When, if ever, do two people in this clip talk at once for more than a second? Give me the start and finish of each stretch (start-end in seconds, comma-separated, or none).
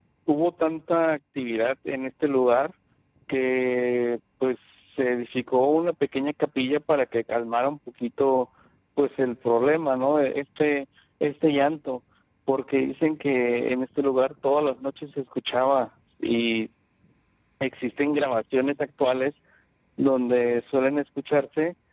none